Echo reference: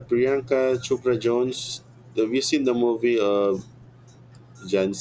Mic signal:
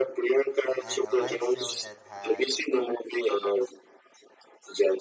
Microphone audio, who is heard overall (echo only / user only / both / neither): both